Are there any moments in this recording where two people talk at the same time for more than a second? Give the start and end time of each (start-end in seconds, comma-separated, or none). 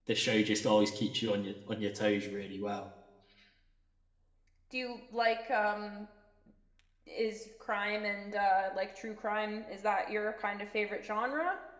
none